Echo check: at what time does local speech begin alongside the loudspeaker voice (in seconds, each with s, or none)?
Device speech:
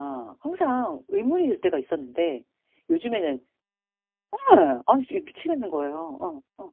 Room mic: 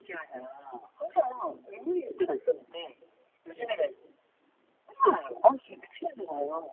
none